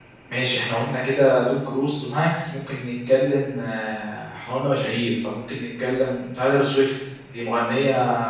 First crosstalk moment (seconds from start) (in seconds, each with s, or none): none